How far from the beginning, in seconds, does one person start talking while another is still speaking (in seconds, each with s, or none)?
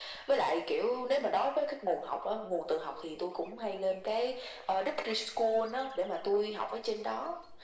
none